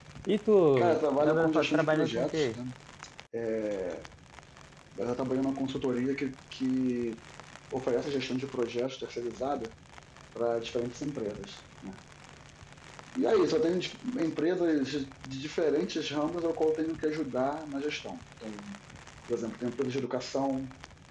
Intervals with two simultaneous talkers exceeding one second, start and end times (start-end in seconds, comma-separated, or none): 1.2-2.6